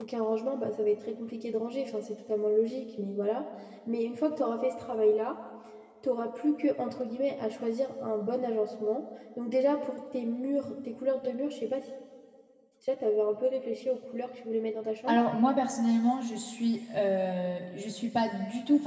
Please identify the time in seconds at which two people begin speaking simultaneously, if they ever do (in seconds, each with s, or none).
none